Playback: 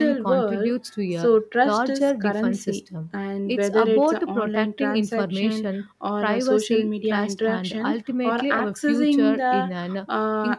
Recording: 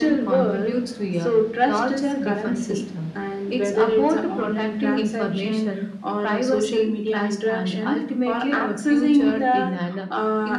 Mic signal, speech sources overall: echo only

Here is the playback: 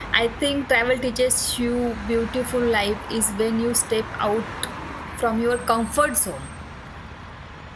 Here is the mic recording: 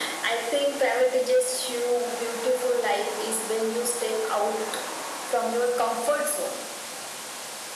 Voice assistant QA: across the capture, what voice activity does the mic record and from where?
echo only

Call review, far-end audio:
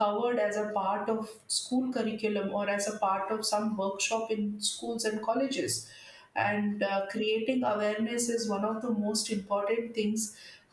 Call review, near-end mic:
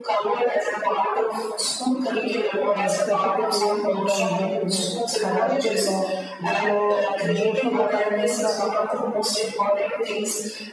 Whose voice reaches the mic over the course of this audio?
both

